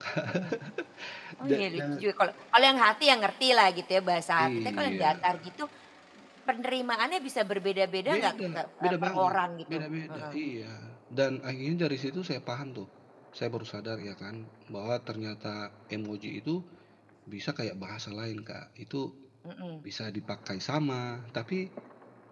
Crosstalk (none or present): present